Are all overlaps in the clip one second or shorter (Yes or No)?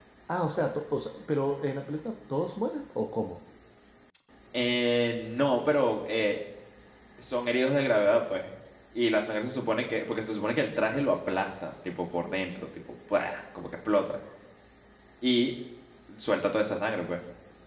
Yes